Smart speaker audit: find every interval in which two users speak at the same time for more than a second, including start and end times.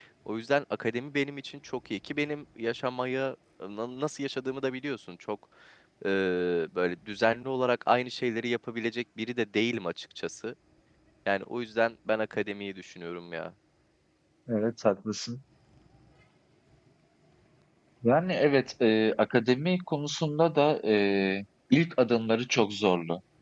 none

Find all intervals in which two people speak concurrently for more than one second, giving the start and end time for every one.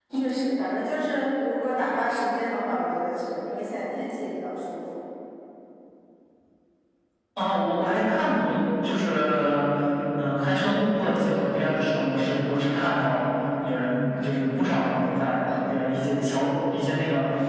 none

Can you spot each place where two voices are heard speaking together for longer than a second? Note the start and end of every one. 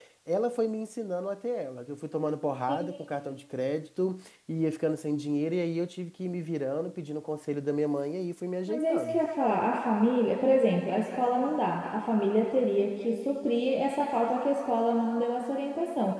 none

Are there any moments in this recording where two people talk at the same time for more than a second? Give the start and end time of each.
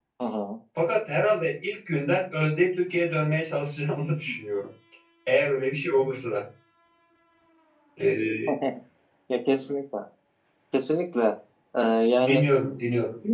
none

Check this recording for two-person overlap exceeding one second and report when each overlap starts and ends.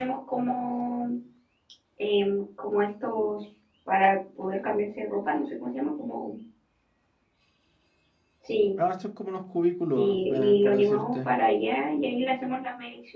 9.9-11.3

